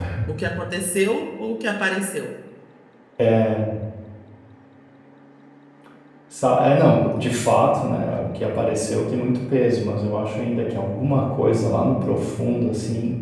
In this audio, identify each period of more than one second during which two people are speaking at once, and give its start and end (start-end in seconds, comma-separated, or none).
none